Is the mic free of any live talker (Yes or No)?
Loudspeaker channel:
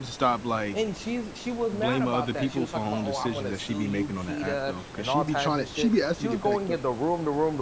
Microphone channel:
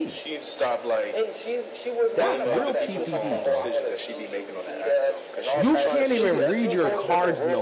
No